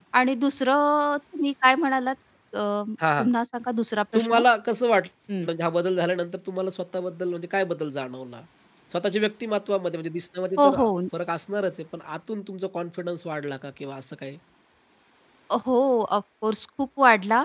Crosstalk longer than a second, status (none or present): none